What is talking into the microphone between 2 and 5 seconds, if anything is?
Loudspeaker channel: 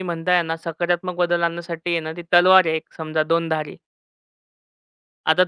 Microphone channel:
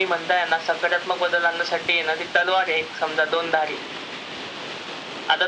echo only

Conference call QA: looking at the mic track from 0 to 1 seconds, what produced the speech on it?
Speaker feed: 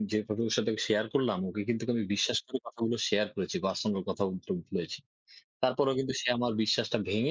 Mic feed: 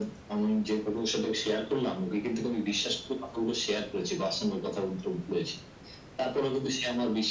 echo only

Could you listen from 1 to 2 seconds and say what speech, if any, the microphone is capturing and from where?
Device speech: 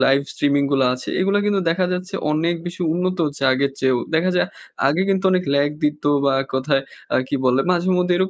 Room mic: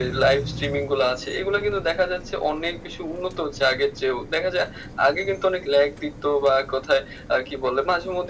echo only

